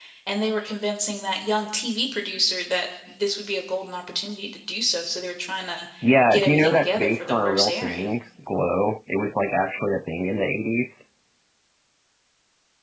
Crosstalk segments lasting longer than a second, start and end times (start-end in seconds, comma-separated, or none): 6.3-8.1